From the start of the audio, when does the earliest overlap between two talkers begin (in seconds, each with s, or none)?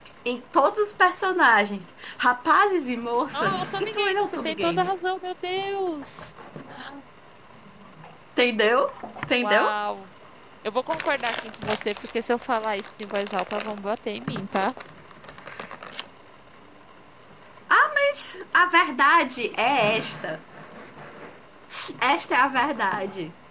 3.3 s